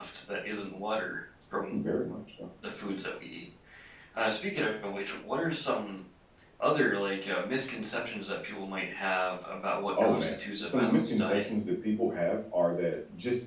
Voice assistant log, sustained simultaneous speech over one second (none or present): present